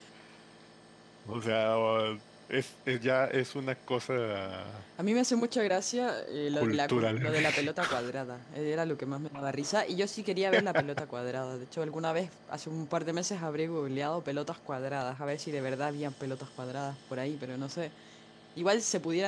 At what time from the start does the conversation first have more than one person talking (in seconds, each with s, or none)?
6.5 s